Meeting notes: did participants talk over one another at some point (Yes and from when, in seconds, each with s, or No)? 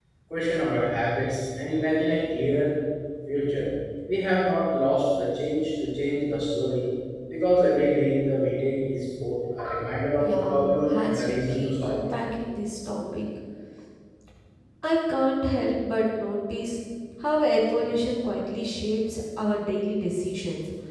Yes, from 10.2 s